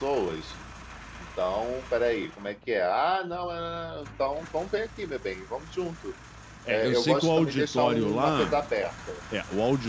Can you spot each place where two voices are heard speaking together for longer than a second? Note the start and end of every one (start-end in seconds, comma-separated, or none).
6.7-8.6